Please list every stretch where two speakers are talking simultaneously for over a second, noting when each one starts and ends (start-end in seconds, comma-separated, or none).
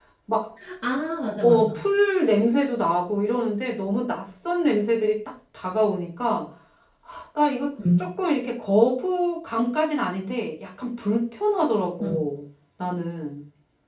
none